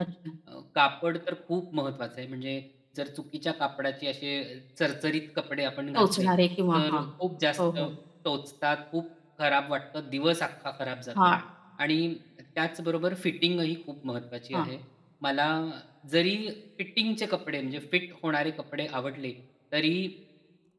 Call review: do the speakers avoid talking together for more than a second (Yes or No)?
Yes